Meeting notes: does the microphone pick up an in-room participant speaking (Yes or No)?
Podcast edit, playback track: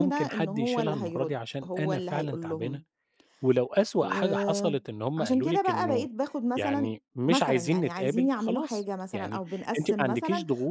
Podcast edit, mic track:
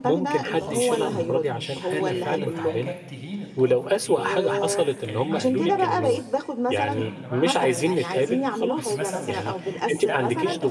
Yes